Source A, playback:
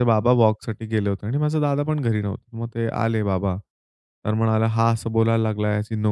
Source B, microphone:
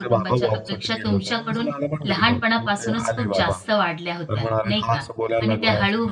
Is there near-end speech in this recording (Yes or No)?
Yes